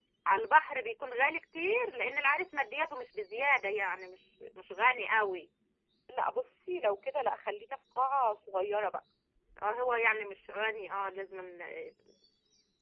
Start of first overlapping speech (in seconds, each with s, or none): none